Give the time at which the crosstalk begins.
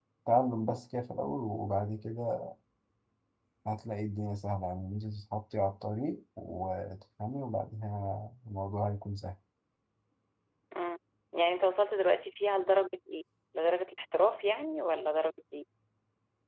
none

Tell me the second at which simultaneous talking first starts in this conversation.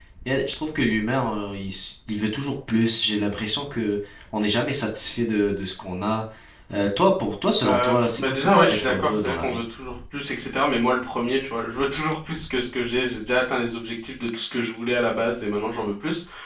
7.6 s

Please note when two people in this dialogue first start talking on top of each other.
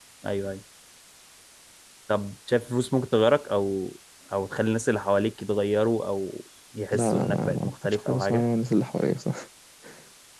6.9 s

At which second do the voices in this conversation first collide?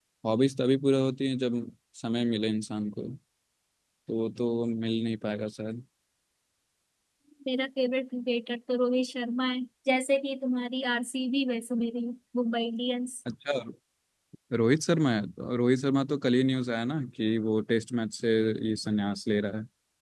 none

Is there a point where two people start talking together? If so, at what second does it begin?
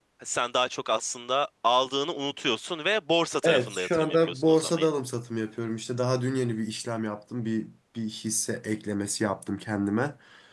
3.4 s

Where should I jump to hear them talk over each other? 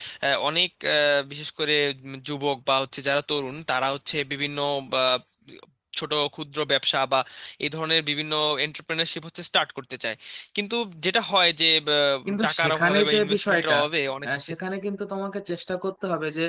12.4 s

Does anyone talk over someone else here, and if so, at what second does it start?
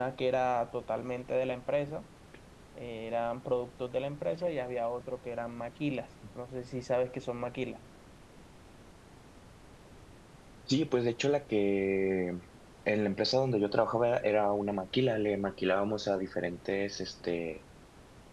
none

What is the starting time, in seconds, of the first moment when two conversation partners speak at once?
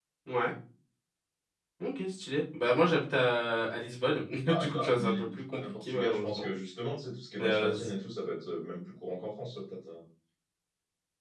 4.4 s

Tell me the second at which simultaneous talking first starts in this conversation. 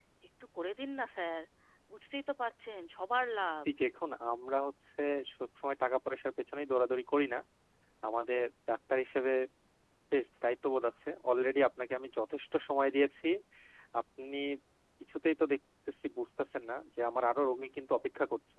none

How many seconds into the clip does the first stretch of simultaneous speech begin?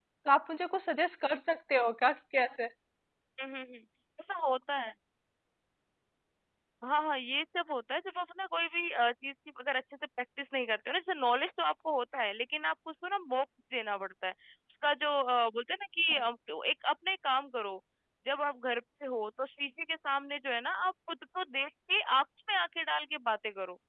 none

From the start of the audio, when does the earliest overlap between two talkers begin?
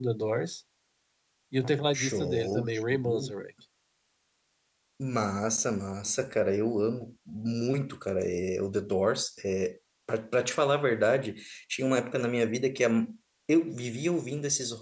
2.0 s

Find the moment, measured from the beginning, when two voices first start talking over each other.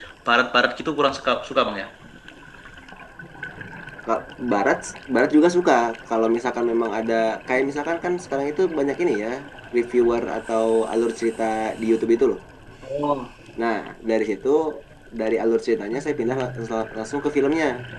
none

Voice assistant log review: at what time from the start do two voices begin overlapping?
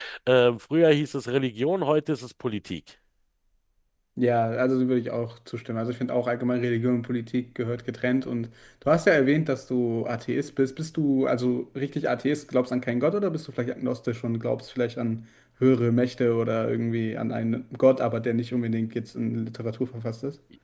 none

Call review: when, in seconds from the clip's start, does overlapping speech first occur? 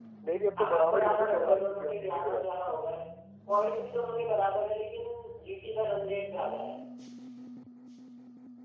0.6 s

